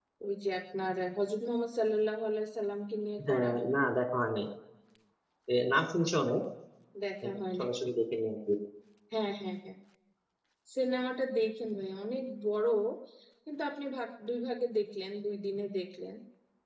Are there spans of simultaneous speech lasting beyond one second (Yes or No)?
No